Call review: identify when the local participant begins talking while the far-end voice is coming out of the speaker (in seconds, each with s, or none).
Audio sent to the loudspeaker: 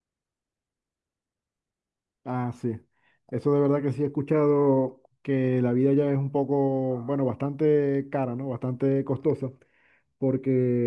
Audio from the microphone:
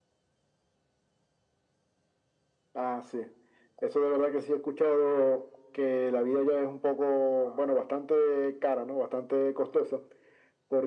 none